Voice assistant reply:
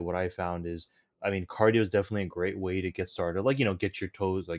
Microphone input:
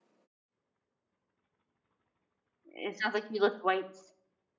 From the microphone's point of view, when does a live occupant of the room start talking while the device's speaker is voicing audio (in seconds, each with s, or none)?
2.6 s